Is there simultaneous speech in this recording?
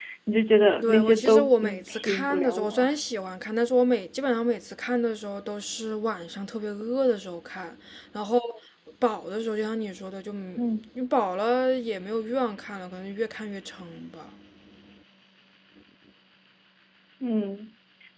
Yes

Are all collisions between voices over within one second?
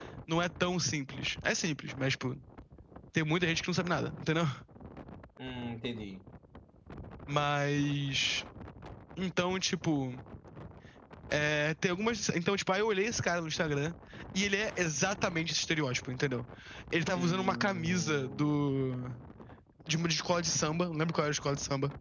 No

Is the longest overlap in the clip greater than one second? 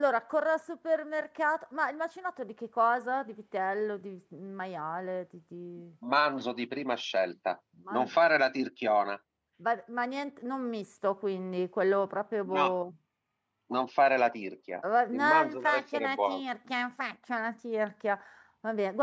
Yes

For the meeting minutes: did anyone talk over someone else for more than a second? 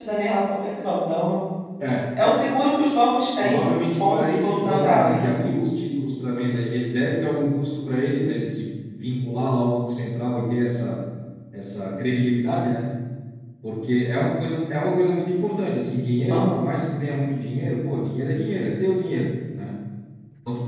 Yes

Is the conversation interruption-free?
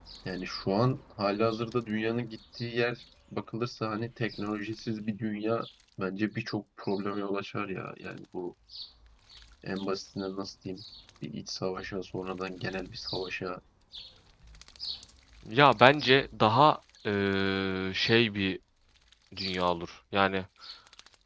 Yes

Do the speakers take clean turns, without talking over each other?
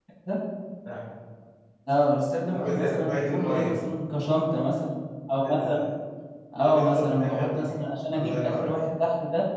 No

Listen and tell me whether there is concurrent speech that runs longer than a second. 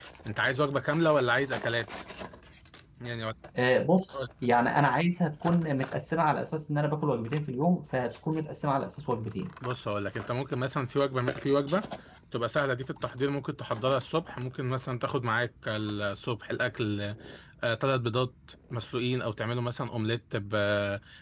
No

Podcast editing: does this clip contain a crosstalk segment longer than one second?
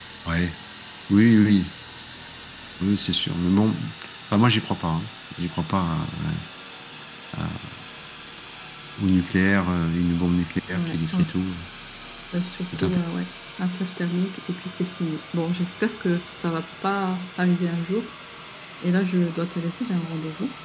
No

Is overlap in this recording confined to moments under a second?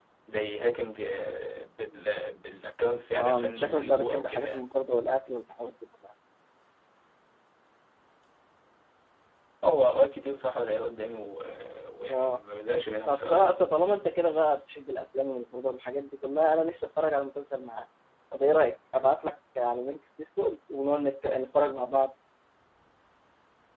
No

